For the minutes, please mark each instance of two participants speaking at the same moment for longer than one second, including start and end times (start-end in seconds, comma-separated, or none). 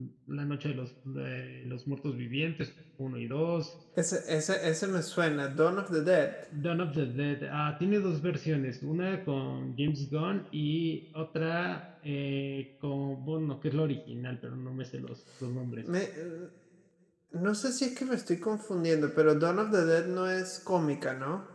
none